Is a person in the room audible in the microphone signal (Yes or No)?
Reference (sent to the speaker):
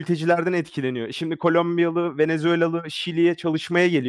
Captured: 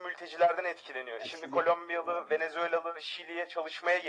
Yes